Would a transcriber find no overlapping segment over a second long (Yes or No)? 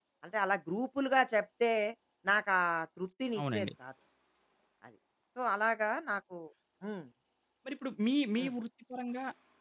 Yes